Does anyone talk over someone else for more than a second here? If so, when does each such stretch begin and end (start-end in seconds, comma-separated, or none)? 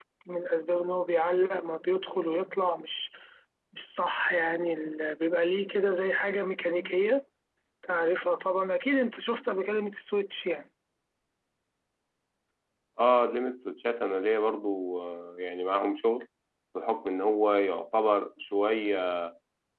none